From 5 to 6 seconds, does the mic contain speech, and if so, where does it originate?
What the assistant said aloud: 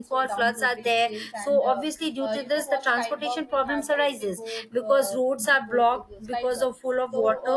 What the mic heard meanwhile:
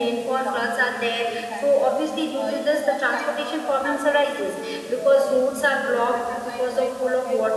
both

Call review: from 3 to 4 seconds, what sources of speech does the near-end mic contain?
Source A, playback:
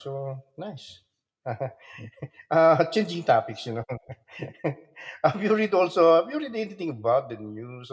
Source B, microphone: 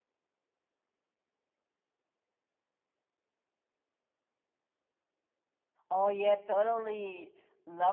neither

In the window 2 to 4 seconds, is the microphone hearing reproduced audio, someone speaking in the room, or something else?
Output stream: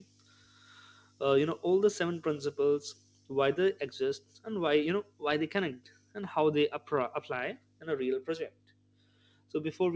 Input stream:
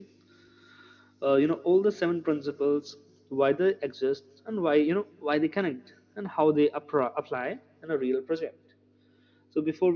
echo only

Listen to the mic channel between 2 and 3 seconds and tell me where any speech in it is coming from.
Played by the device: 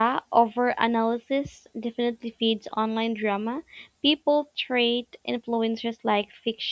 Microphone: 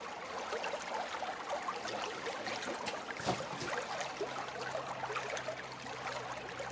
neither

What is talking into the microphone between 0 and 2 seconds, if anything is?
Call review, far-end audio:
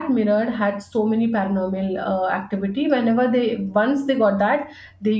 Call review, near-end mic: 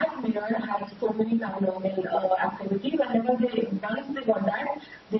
echo only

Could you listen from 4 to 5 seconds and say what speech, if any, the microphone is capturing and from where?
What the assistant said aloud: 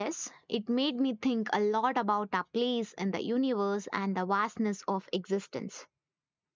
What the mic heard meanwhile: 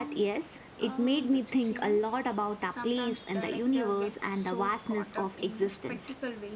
both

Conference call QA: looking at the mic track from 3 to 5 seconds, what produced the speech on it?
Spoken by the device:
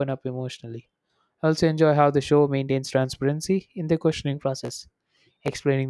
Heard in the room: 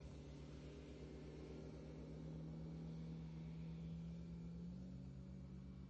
neither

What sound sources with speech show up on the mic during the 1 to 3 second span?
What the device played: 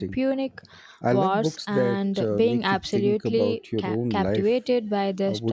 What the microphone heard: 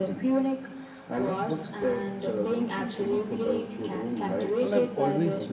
echo only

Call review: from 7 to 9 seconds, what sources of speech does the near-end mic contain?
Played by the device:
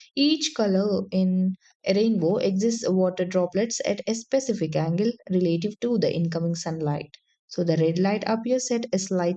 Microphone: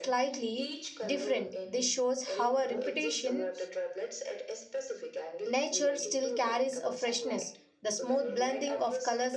both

